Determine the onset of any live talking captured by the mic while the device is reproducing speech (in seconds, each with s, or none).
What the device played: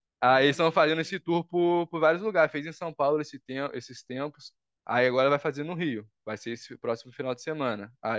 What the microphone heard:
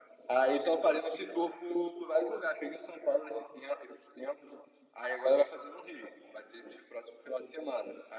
none